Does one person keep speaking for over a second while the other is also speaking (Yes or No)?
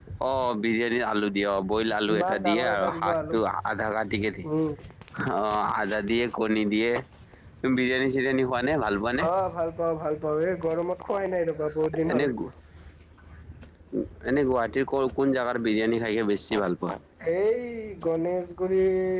Yes